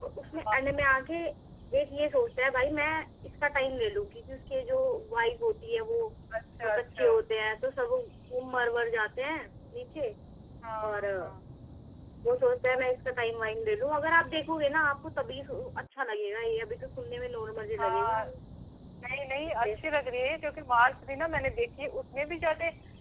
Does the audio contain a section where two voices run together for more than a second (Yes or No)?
No